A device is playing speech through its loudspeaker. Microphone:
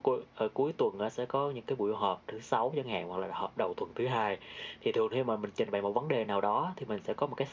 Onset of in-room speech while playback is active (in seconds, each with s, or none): none